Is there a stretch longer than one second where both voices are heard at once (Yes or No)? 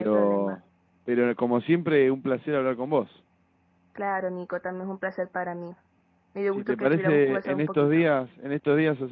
Yes